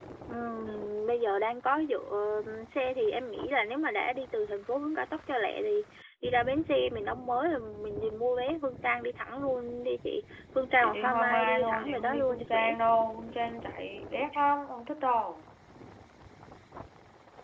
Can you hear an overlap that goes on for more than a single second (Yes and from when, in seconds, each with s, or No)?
Yes, from 10.8 s